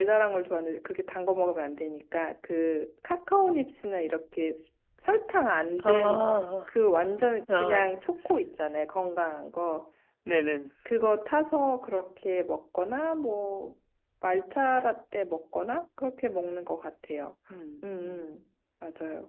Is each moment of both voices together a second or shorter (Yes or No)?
Yes